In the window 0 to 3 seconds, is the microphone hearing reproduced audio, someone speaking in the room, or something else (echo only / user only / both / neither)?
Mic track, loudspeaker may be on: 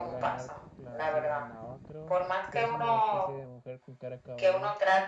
both